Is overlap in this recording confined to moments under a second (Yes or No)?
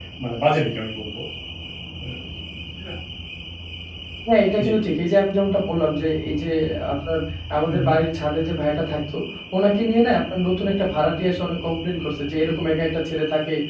Yes